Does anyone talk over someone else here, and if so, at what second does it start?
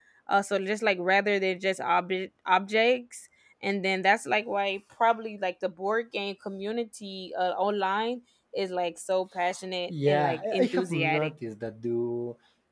9.9 s

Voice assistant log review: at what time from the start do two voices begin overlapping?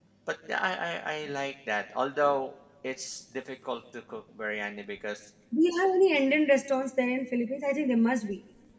none

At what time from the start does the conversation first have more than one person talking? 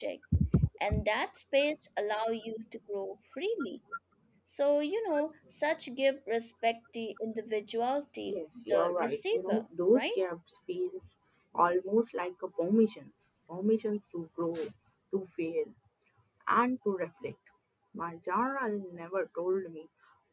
8.2 s

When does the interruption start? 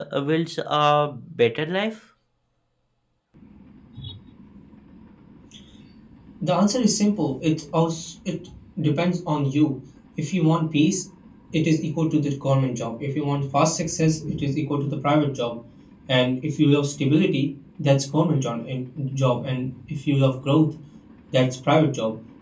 none

